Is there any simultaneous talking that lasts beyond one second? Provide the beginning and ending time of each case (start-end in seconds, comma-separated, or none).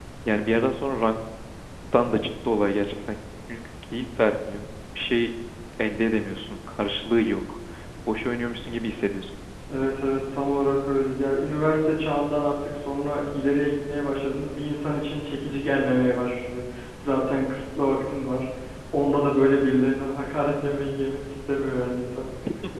none